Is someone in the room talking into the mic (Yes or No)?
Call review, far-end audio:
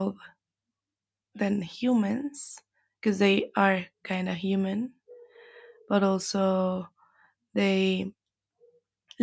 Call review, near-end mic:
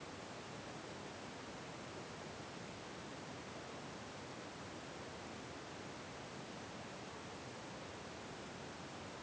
No